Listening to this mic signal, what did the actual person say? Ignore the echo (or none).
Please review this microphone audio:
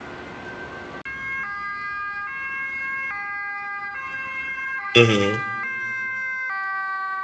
Mm-hmm.